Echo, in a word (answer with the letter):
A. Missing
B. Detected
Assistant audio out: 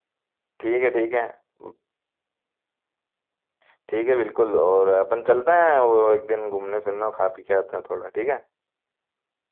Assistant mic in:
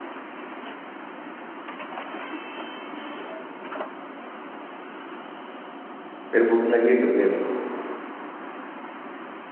A